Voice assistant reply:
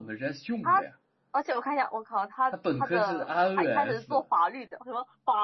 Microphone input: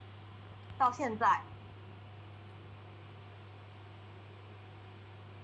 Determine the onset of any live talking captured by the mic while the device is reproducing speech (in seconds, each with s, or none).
0.8 s